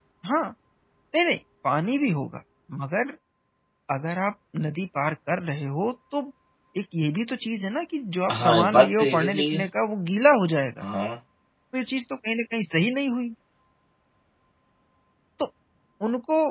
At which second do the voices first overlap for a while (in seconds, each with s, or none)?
8.3 s